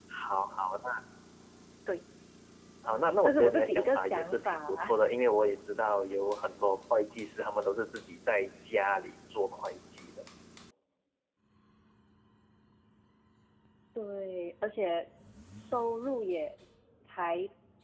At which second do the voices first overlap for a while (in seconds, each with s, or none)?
2.8 s